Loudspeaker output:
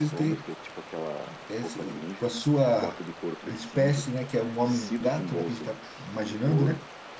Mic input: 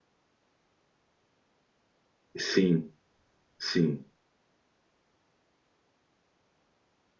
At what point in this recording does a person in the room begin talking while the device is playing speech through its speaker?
2.4 s

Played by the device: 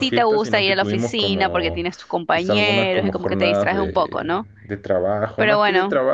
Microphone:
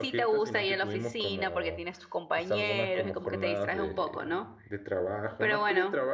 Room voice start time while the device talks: none

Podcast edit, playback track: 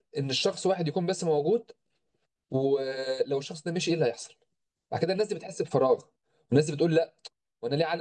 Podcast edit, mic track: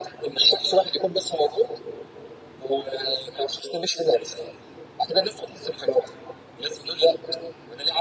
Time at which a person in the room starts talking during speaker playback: none

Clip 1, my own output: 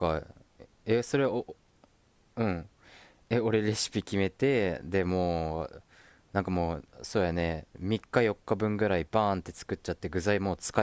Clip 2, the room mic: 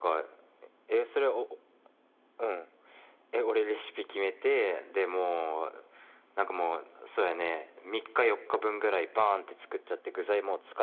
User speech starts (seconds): none

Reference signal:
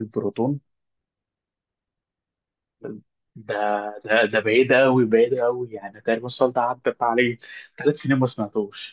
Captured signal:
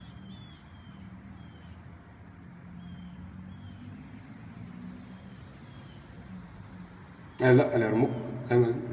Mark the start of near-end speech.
7.4 s

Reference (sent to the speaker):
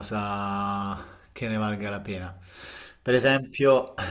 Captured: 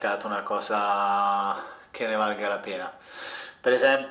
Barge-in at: none

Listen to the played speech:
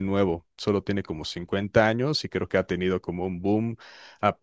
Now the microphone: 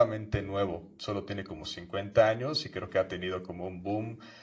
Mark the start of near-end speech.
none

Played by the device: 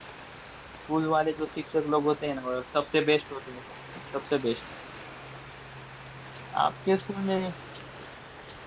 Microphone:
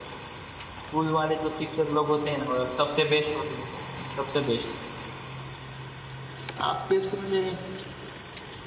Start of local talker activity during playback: none

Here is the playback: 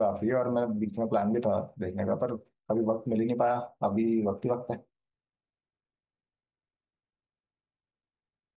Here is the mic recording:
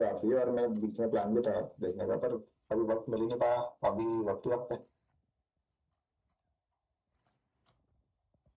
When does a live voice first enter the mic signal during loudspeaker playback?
none

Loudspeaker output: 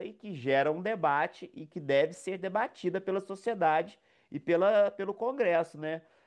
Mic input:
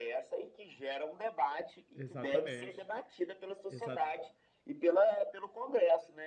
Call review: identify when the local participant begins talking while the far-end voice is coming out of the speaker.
1.9 s

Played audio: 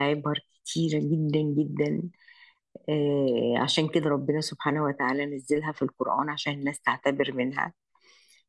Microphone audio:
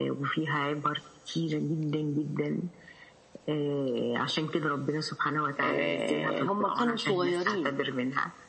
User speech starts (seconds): 5.6 s

